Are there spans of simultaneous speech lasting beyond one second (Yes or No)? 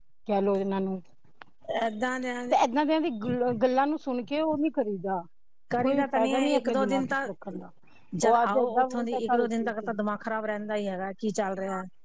Yes